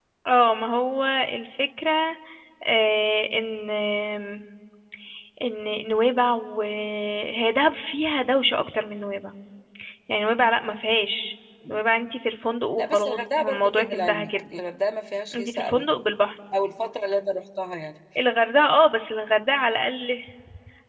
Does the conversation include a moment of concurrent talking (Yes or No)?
Yes